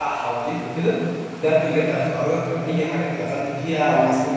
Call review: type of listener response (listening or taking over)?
taking over